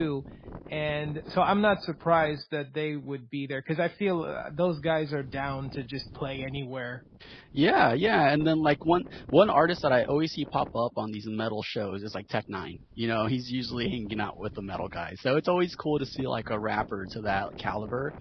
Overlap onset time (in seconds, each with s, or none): none